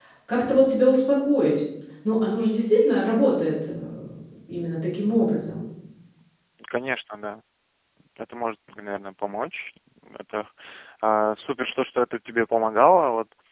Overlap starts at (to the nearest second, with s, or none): none